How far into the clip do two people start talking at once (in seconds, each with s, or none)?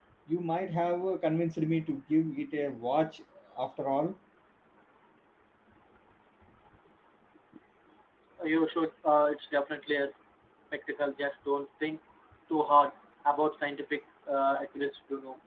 none